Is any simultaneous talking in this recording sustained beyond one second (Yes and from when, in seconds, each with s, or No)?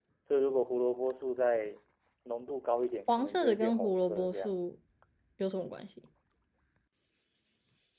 Yes, from 3.1 s